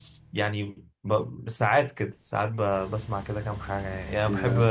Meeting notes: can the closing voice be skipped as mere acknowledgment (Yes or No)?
Yes